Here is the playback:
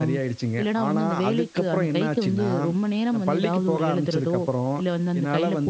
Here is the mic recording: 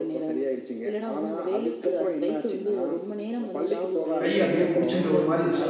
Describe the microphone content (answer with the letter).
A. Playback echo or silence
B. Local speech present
B